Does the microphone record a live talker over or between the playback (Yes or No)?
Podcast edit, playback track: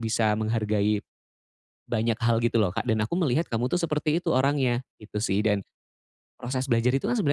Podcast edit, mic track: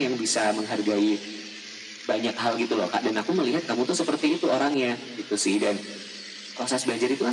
No